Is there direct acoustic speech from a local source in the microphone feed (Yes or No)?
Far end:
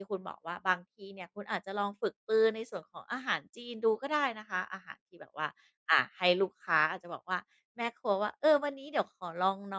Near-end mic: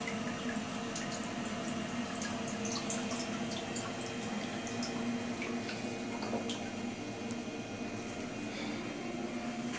No